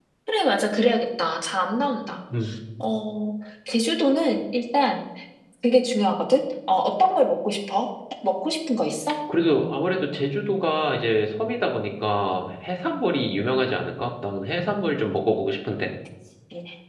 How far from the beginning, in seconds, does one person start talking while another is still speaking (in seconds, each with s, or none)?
none